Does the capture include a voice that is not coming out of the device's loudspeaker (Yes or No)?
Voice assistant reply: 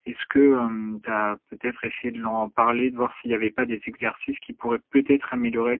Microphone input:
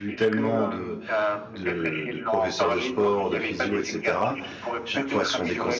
Yes